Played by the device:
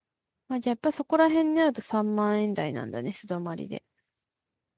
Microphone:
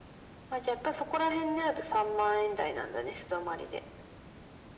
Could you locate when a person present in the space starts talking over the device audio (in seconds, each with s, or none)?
none